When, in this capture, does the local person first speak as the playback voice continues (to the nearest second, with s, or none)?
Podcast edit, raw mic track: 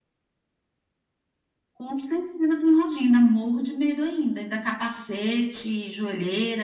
none